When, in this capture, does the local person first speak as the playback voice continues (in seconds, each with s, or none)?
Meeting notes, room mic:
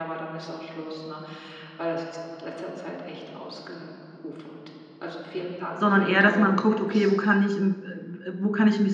5.7 s